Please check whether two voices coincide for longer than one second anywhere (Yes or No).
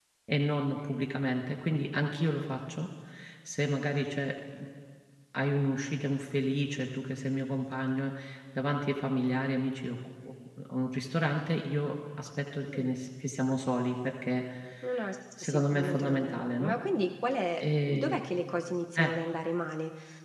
Yes